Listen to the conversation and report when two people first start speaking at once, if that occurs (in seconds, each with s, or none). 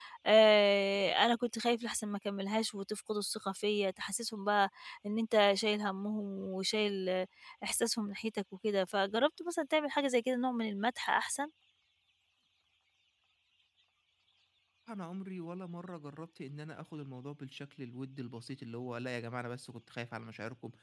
none